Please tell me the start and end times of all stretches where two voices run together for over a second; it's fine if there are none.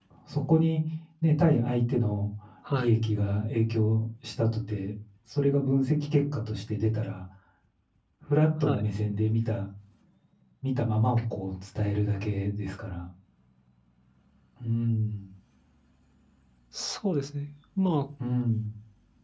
none

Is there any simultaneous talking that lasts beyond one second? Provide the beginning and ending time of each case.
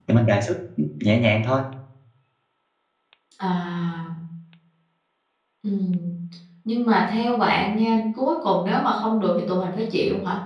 none

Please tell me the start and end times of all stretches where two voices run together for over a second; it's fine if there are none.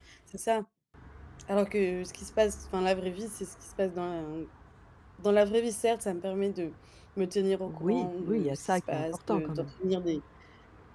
7.7-9.6

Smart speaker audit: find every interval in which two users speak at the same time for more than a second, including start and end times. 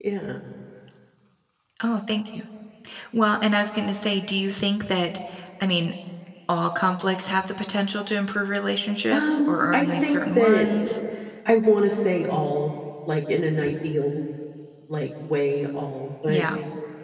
9.1-10.7

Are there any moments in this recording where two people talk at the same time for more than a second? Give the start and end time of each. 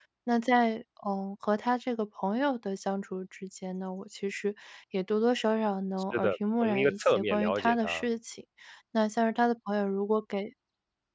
6.1-8.0

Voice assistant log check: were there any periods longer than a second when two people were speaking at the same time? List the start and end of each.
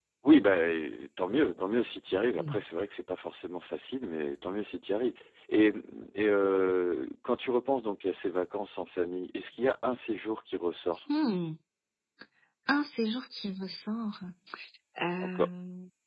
none

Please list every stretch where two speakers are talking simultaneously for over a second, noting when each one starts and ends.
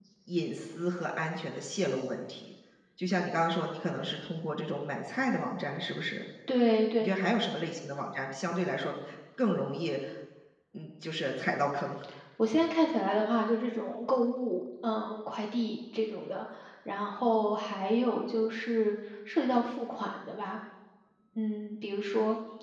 none

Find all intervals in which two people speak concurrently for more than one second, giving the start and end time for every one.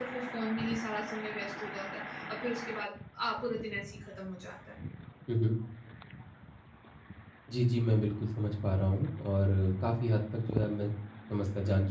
none

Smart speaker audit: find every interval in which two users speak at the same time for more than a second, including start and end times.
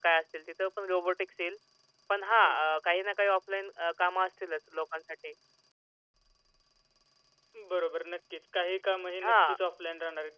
none

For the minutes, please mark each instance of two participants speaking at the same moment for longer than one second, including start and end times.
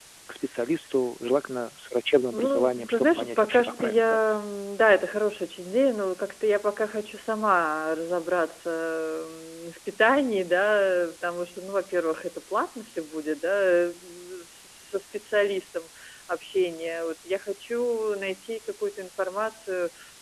2.3-4.3

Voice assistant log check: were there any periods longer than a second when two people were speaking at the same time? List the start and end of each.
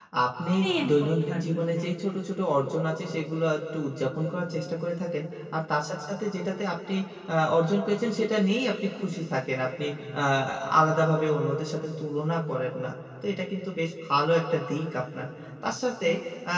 0.5-1.9

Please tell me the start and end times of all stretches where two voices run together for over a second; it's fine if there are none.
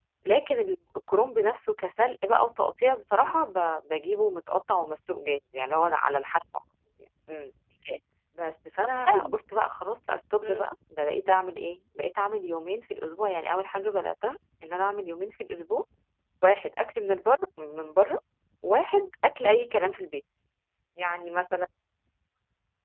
none

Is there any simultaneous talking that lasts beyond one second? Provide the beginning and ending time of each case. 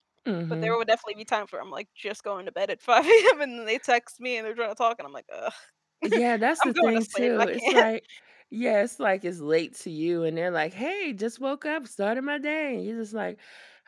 6.6-7.9

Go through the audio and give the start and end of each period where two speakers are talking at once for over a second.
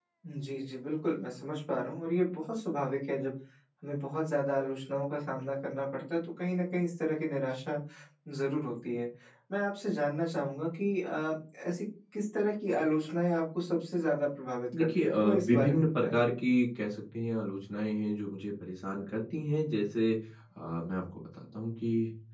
14.8-16.2

